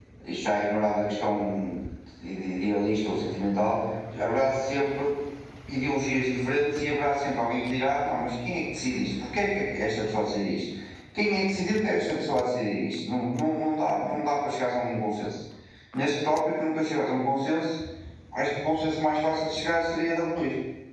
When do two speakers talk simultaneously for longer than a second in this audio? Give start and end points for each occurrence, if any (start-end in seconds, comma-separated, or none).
none